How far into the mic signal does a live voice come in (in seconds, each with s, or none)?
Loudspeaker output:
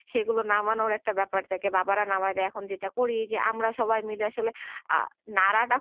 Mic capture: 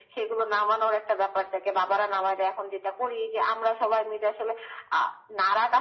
none